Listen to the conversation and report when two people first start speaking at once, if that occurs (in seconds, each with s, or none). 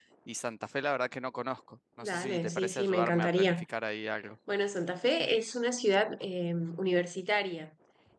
2.0 s